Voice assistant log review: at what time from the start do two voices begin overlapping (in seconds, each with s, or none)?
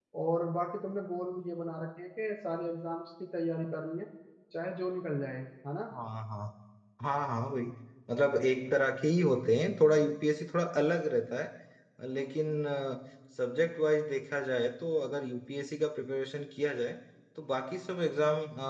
none